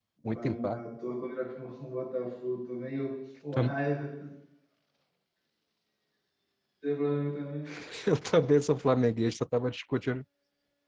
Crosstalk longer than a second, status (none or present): none